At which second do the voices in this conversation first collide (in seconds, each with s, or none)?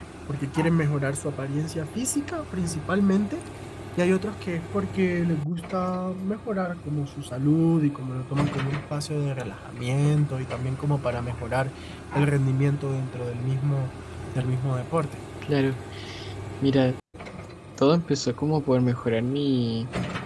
none